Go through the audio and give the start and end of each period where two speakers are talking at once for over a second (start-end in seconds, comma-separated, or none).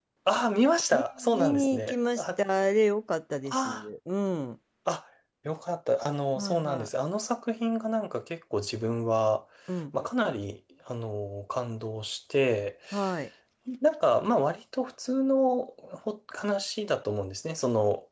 0.9-2.2